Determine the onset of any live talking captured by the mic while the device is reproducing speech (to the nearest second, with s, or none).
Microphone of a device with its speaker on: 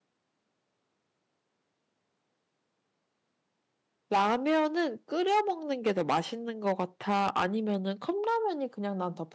4 s